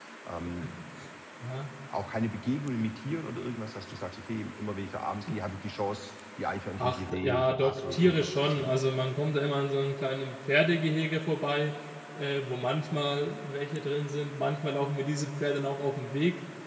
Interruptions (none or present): present